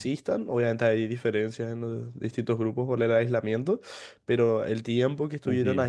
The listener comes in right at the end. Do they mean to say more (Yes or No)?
No